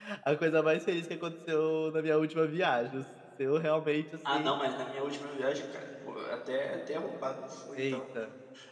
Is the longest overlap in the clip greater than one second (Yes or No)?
No